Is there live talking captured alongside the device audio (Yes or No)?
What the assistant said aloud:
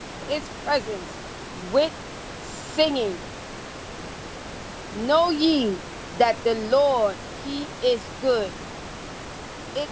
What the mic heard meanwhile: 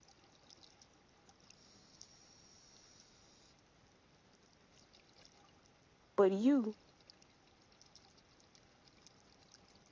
Yes